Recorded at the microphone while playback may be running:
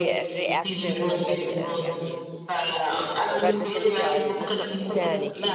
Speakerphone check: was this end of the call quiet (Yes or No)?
No